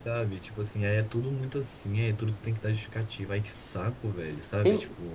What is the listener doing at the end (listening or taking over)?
taking over